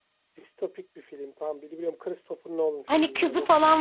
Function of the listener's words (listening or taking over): taking over